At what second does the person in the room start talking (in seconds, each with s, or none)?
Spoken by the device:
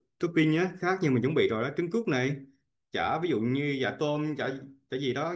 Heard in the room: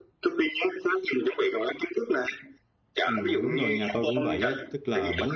3.0 s